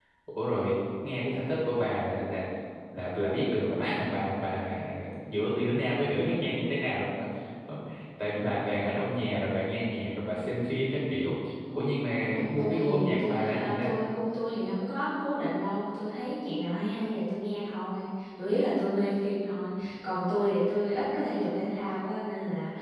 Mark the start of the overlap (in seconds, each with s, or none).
12.2 s